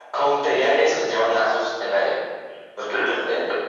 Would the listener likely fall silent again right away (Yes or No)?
Yes